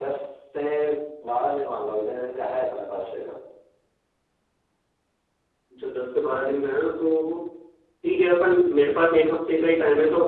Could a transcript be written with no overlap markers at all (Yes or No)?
Yes